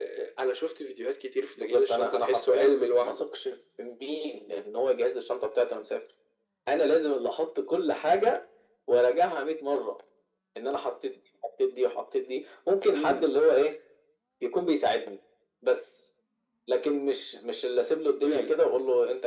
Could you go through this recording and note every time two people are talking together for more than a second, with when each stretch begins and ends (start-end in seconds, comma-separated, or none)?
1.6-3.2